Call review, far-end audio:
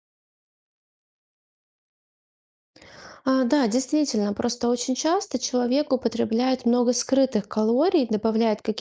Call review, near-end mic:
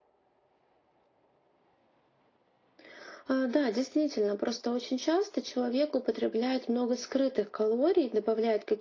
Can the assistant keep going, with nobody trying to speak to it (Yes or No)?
Yes